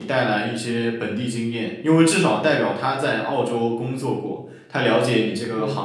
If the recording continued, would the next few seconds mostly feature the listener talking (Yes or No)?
No